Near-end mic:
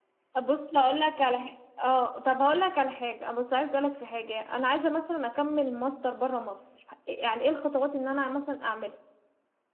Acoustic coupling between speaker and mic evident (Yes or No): No